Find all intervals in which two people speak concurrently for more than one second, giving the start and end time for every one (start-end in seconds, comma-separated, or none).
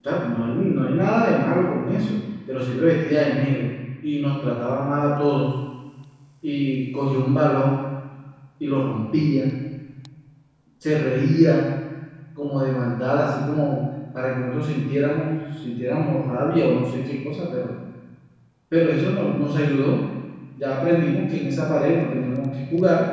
none